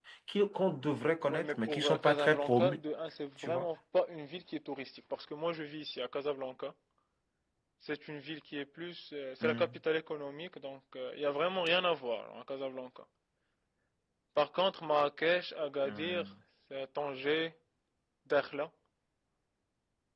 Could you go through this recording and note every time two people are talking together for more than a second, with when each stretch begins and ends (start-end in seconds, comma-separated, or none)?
1.3-2.8